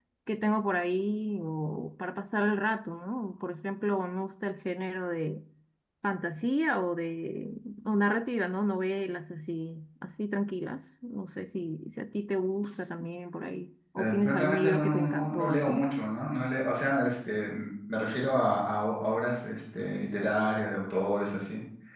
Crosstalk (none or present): present